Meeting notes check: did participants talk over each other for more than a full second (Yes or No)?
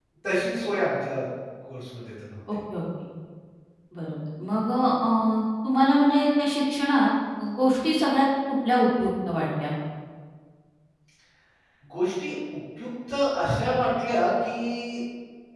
No